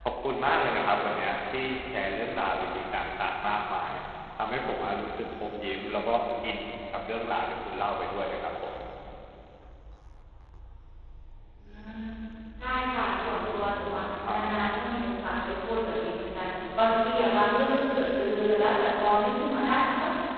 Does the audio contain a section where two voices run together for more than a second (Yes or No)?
No